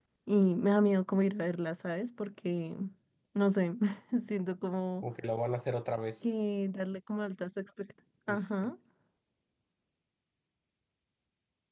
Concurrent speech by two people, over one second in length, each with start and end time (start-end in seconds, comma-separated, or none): none